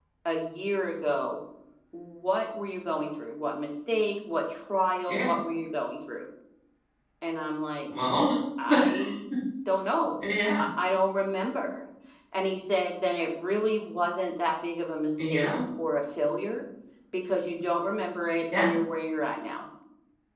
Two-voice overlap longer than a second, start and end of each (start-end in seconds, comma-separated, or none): none